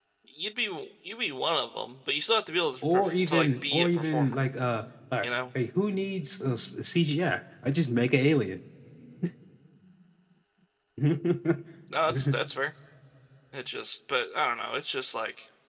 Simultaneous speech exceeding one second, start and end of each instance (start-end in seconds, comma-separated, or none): 2.9-4.4